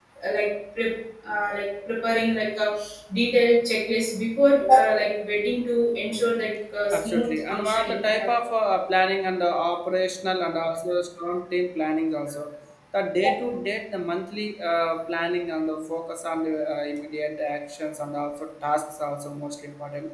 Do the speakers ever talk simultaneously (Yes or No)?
Yes